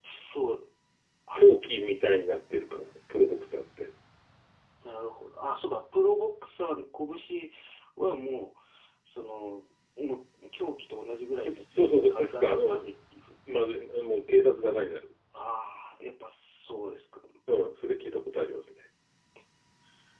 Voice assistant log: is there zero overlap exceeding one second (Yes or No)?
No